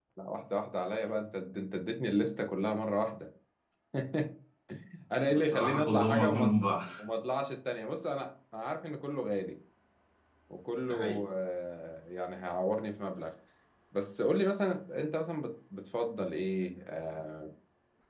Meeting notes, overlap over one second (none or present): present